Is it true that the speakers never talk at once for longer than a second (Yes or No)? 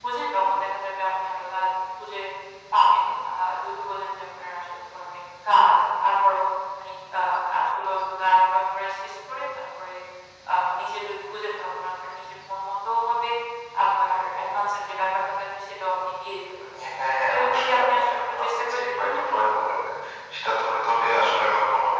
No